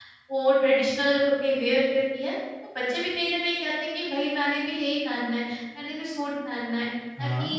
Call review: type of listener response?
listening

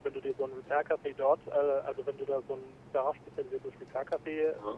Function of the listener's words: listening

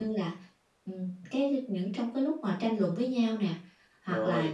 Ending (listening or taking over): listening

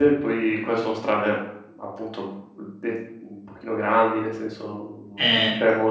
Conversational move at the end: listening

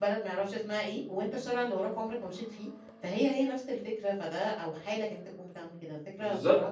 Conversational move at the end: taking over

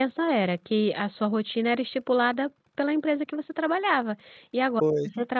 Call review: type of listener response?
listening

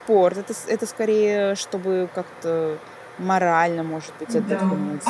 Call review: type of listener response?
taking over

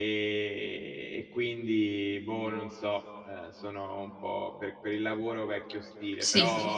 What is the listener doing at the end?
listening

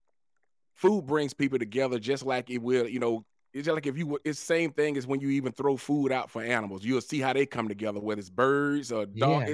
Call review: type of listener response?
listening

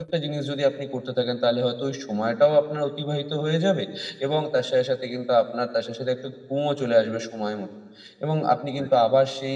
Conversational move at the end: listening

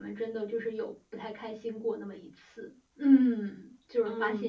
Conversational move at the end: taking over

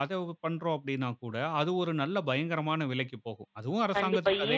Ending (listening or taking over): taking over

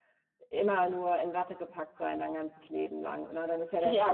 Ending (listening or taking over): listening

